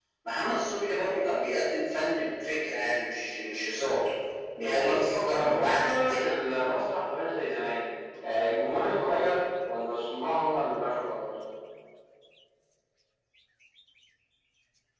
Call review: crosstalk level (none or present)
present